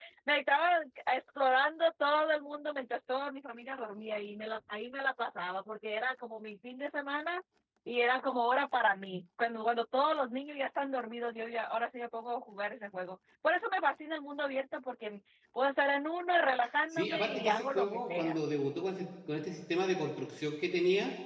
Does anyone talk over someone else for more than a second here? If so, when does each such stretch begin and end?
16.9-18.4

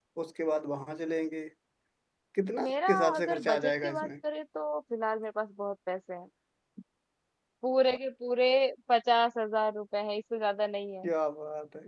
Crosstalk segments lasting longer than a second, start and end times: 2.6-4.1

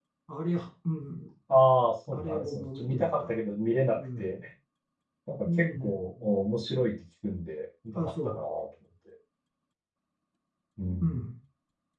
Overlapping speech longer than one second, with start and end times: 2.1-3.4

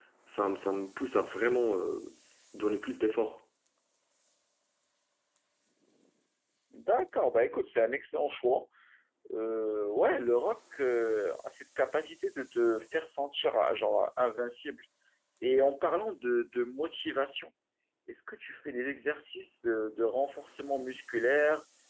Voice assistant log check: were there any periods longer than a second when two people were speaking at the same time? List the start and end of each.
none

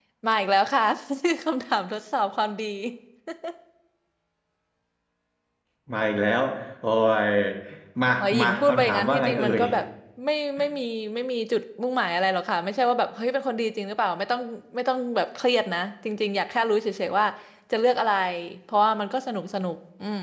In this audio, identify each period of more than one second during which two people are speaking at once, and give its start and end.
8.2-9.6

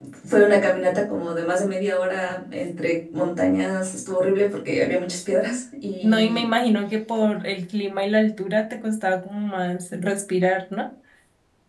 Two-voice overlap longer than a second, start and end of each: none

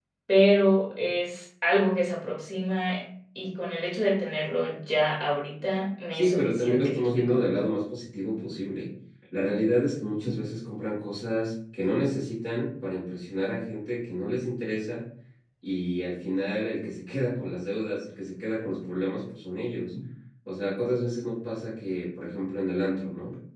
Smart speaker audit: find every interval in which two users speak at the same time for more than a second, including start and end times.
6.1-7.5

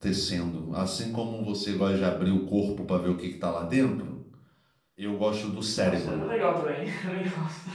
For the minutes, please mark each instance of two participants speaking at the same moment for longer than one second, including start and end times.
none

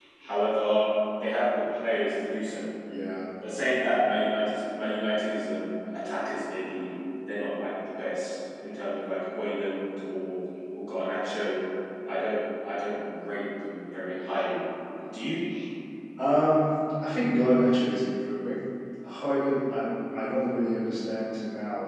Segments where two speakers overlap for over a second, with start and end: none

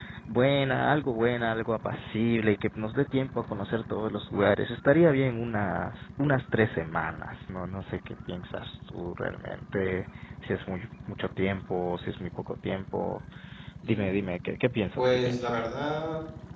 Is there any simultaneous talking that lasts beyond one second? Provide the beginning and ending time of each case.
none

